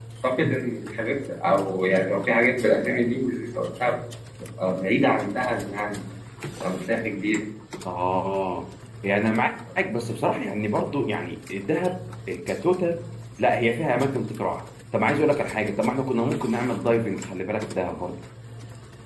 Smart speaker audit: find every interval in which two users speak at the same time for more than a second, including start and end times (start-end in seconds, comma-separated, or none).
none